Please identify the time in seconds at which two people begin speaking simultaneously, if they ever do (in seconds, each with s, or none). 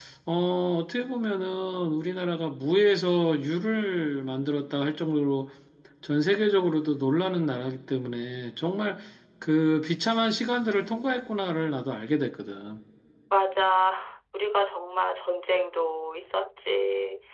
none